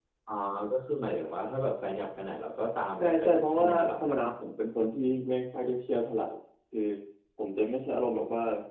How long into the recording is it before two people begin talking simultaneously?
3.0 s

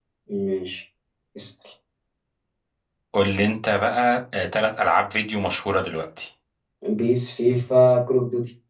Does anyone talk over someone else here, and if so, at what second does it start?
none

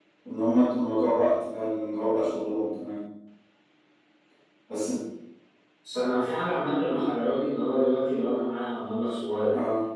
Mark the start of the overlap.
none

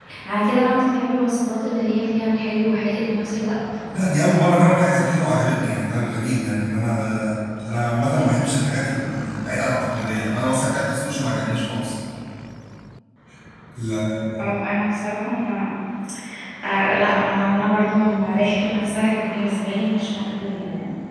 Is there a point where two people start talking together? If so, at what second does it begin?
none

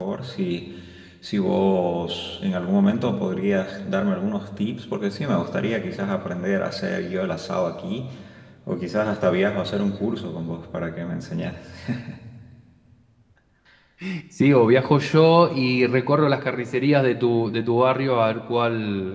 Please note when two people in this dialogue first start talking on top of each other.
none

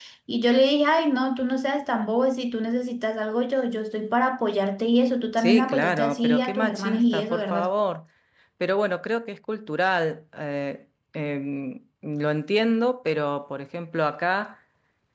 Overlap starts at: 5.4 s

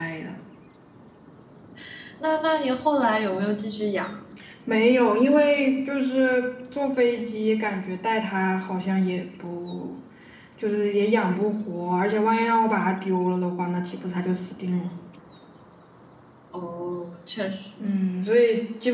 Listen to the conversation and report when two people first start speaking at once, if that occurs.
none

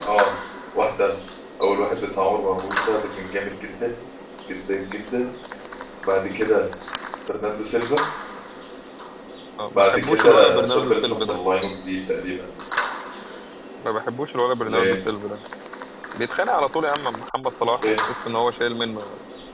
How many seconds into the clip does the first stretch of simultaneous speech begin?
9.8 s

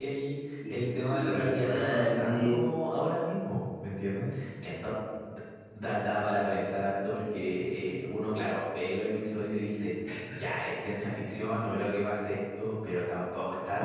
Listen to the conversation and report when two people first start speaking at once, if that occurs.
0.7 s

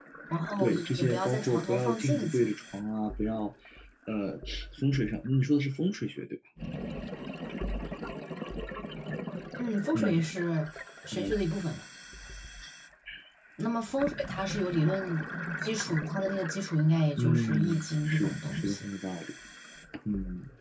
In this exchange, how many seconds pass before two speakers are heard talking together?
0.6 s

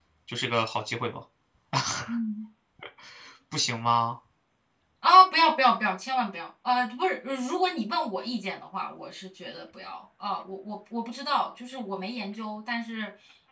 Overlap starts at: none

